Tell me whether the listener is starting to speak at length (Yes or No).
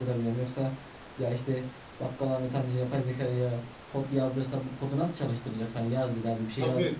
Yes